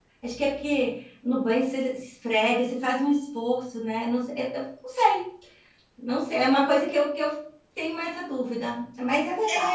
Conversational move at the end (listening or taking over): taking over